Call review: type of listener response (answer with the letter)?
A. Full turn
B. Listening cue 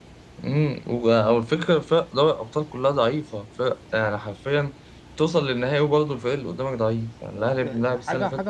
A